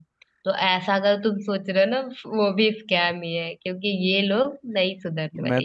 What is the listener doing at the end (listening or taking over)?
taking over